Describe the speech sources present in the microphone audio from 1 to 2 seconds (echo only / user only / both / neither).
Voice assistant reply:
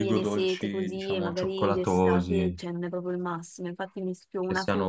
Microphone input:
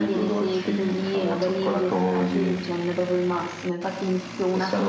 echo only